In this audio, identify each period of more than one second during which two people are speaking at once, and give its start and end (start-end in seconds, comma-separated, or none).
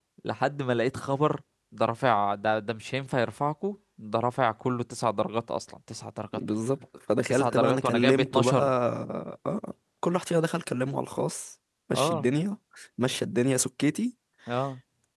7.3-8.6